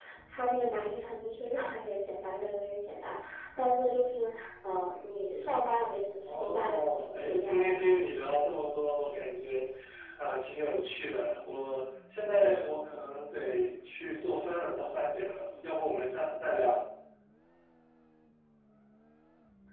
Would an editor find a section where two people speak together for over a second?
Yes, from 6.2 s

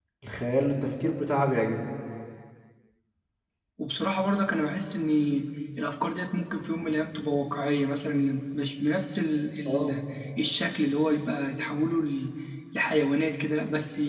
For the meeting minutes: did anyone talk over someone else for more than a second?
No

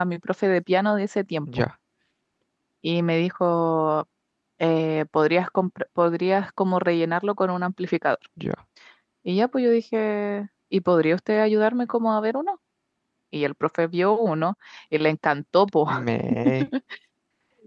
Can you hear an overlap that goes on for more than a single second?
No

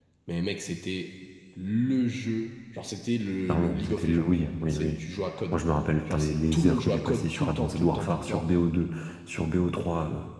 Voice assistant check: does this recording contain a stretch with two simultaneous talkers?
Yes, from 3.5 s

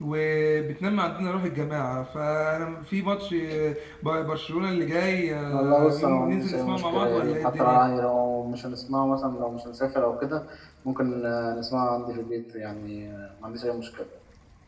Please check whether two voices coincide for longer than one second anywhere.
Yes, from 5.5 s

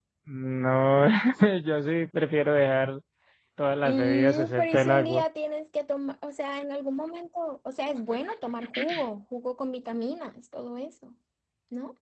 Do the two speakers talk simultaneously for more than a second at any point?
Yes, from 3.9 s

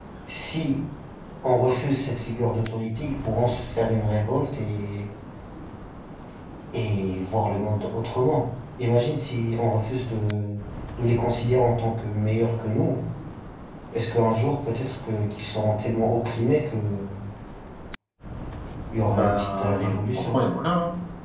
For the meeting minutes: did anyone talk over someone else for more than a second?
Yes, from 19.0 s

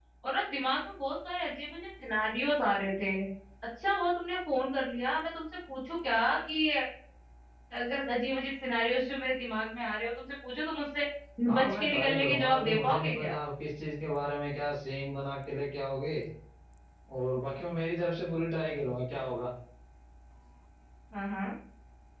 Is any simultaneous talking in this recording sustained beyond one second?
Yes, from 11.6 s

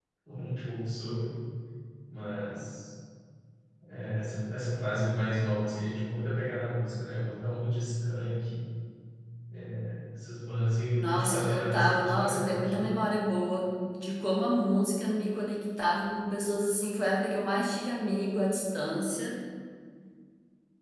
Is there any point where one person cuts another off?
Yes, from 11.0 s

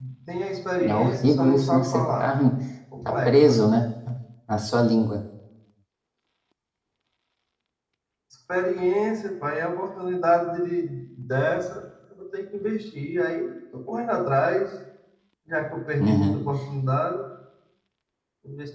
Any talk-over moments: Yes, from 0.8 s

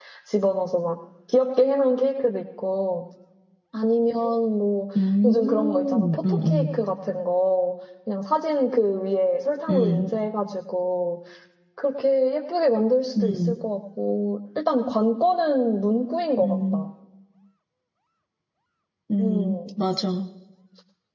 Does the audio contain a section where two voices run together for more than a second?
Yes, from 5.2 s

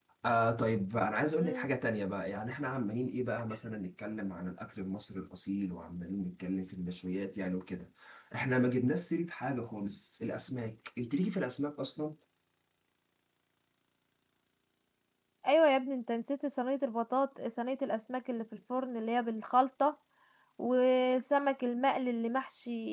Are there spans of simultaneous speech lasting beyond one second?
No

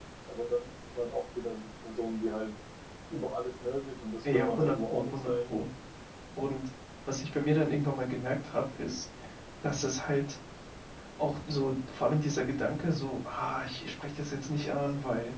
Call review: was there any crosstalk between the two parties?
Yes, from 4.2 s

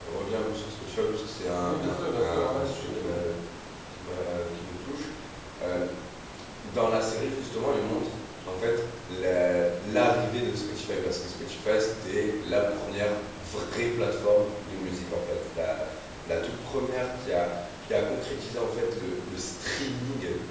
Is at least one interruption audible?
Yes, from 1.6 s

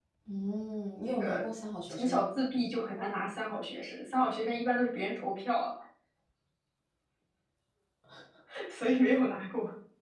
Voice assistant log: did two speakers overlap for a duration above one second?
No

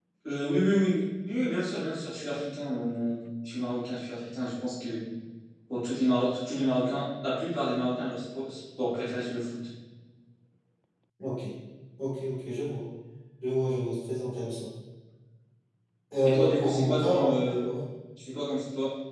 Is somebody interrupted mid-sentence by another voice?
Yes, from 16.2 s

